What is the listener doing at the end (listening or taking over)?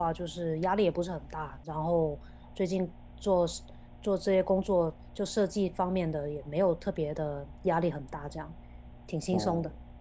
taking over